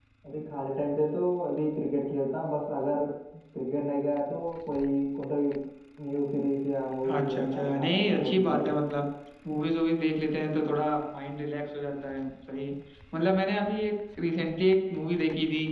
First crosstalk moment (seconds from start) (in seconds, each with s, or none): 7.0 s